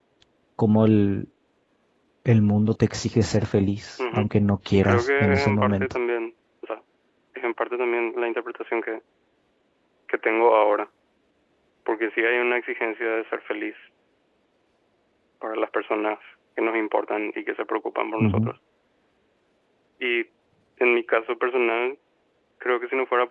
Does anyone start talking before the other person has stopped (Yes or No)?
Yes